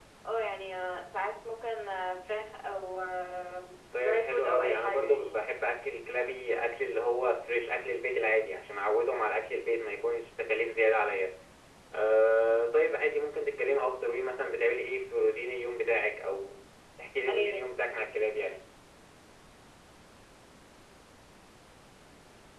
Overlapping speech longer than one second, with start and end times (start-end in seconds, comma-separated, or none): 4.0-5.5